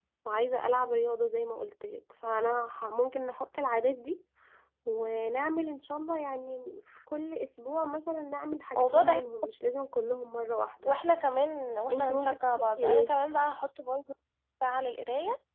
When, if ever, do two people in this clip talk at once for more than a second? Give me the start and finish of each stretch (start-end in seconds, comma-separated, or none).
11.9-13.1